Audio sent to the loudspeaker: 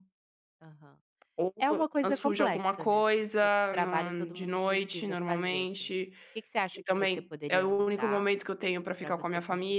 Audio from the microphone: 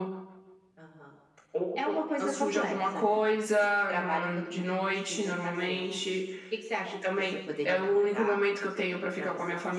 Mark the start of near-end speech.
none

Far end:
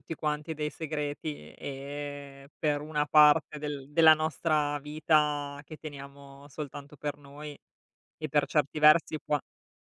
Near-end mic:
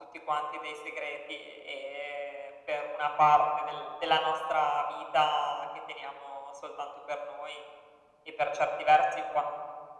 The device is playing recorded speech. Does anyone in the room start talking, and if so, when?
none

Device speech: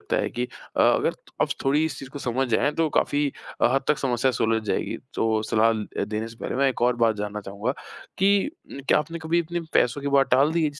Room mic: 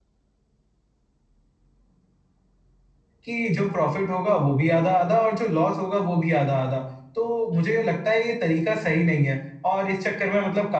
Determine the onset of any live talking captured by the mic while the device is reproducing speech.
3.2 s

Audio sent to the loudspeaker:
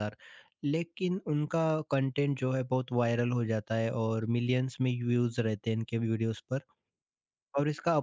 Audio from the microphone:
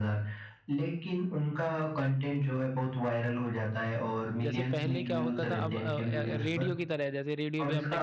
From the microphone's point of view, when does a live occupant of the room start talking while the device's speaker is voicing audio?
4.4 s

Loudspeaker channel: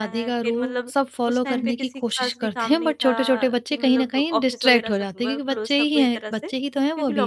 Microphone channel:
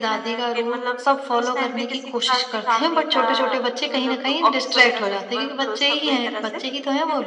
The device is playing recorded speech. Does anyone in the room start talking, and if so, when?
none

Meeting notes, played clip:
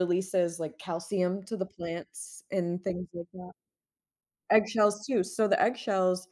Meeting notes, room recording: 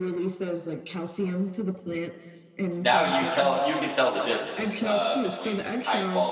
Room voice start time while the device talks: 2.8 s

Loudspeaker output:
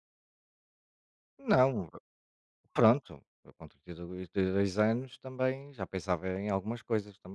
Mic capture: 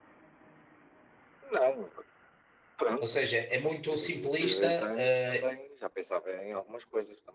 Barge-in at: 3.0 s

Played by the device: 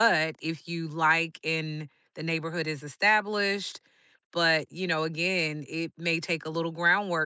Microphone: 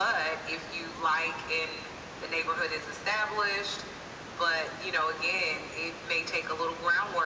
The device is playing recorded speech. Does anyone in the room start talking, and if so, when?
none

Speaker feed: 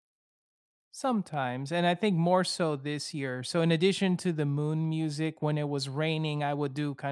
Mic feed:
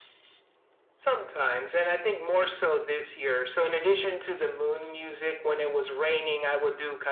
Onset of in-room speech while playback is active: none

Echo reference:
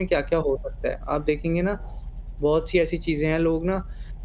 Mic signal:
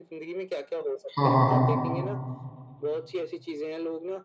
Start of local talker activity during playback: 1.2 s

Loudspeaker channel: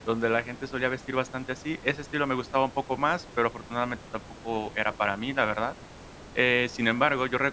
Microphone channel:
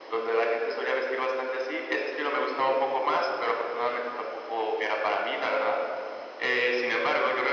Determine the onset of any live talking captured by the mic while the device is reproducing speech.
none

